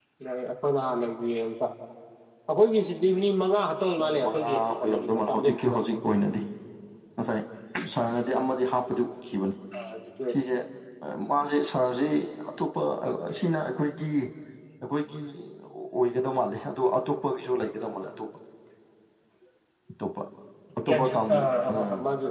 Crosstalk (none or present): present